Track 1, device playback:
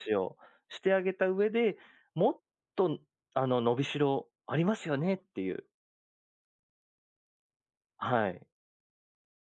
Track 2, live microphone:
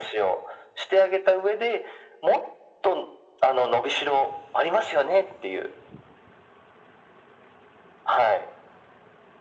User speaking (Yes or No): No